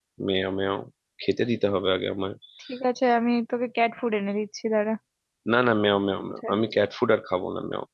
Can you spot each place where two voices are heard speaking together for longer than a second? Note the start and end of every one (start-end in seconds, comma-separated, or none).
none